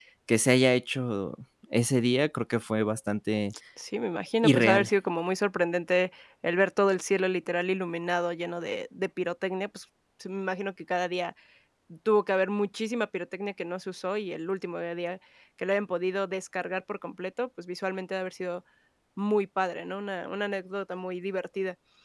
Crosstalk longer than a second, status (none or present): none